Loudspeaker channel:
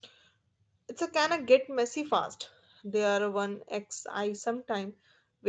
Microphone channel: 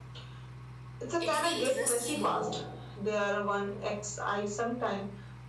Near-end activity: present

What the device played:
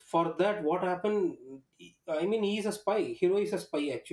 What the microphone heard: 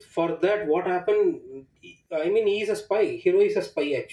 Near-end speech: none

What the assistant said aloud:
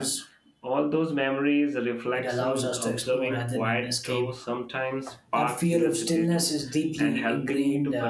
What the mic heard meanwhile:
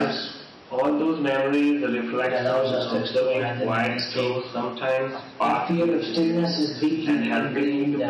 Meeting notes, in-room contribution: none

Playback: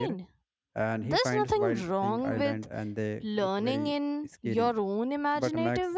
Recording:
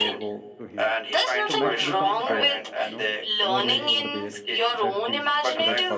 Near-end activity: present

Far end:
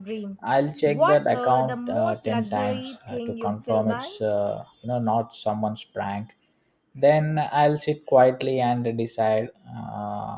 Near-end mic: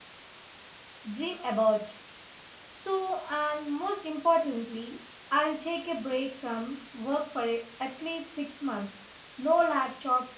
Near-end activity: present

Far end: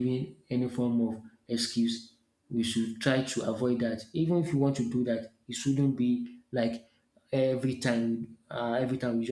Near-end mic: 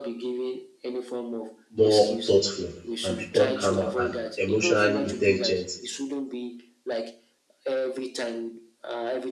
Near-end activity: present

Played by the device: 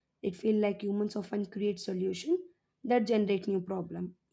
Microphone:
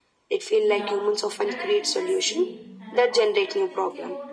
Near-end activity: present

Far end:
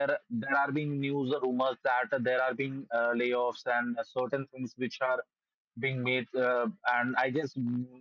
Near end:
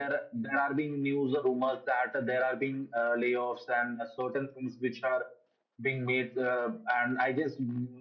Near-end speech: none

